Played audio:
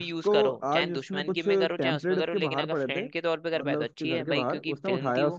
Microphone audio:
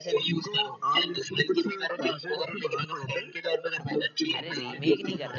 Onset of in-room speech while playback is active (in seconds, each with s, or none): 4.3 s